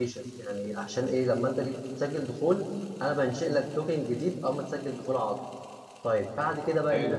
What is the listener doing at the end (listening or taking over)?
taking over